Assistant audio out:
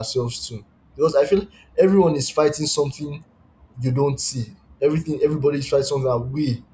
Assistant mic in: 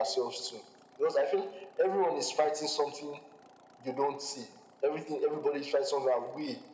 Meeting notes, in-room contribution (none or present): none